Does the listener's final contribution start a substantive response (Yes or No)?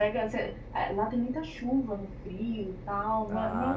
No